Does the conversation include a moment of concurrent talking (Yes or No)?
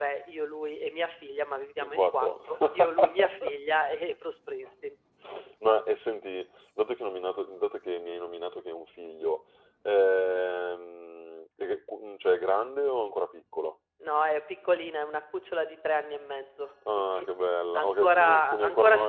Yes